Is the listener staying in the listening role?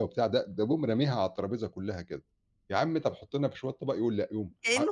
No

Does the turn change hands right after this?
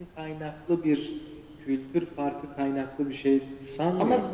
Yes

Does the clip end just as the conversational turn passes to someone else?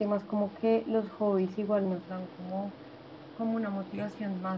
No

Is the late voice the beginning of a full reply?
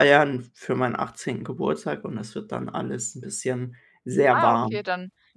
Yes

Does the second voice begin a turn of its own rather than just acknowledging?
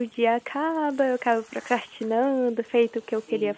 No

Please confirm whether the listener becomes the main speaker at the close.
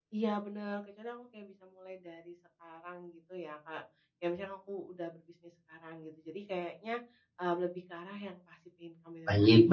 Yes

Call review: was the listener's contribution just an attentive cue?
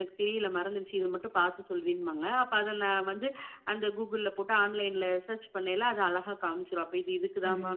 Yes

